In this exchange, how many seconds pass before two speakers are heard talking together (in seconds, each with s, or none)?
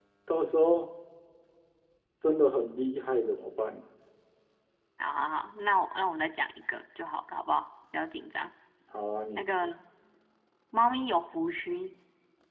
none